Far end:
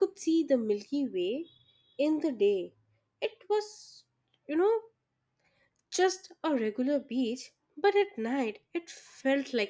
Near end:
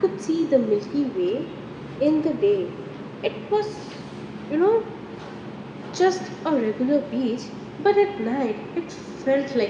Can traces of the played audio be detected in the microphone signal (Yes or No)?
Yes